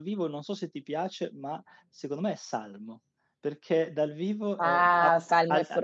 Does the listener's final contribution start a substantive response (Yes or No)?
Yes